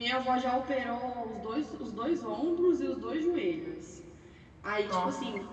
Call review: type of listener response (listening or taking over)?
listening